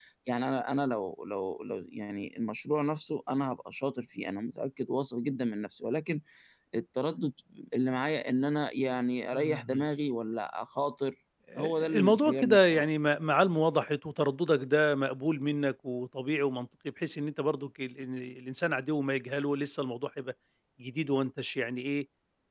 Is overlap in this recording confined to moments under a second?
No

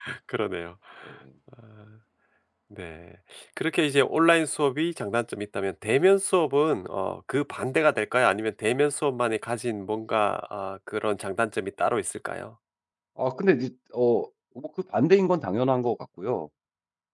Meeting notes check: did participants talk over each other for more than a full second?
No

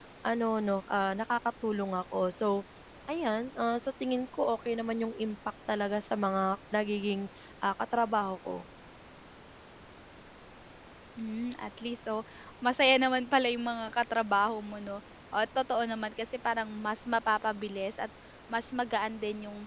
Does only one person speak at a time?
Yes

